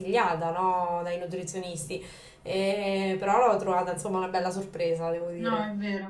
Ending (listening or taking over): taking over